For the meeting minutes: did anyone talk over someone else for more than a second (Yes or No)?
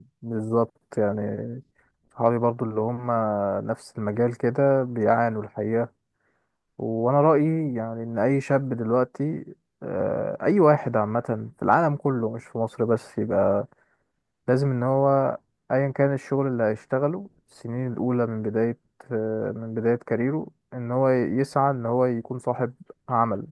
No